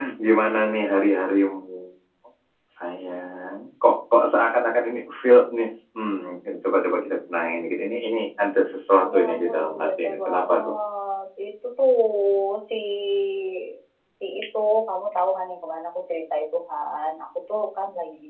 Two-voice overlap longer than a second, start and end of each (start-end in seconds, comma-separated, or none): 8.9-10.7